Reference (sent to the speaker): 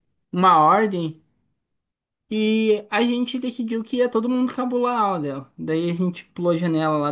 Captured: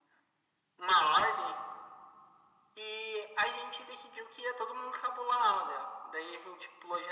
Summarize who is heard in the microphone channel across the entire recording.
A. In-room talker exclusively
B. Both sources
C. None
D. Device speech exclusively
D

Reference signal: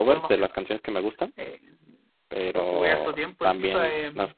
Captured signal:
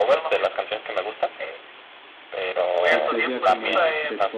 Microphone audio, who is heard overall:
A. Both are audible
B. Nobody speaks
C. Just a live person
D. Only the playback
A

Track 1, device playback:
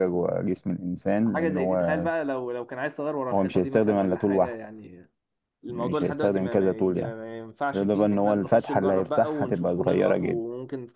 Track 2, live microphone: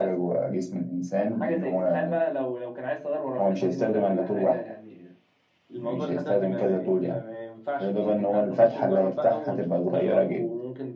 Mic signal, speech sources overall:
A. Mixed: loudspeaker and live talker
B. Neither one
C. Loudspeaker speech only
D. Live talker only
C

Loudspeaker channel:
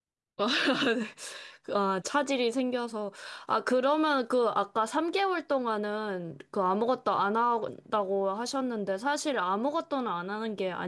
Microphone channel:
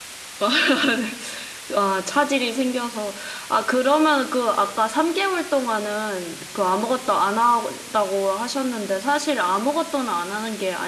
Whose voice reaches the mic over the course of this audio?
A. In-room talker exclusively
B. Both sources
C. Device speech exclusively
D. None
C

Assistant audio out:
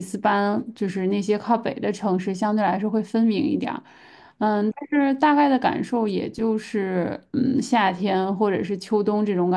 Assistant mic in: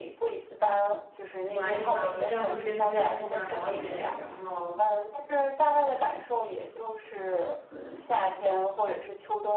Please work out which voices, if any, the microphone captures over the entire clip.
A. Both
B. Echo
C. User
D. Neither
A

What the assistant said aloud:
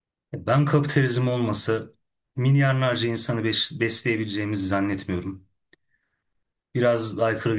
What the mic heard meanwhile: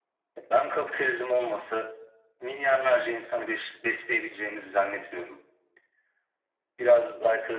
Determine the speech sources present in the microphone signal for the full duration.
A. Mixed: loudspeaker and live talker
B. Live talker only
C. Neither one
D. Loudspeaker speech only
D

